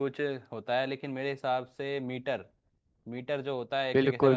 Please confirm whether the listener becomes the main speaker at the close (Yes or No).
Yes